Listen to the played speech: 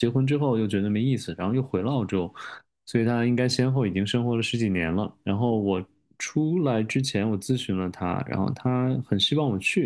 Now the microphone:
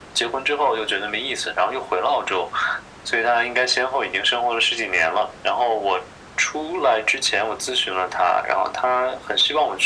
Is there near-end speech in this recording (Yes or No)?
No